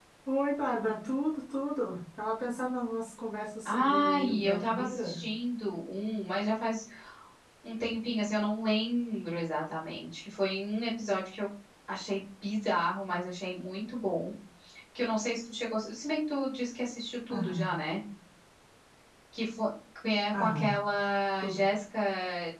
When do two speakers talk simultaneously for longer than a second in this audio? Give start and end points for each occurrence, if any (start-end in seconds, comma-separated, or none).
3.6-5.2